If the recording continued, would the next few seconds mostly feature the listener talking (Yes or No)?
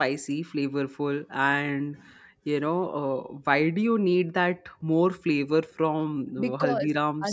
Yes